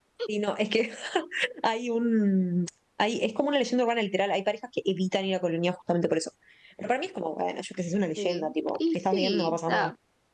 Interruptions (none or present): present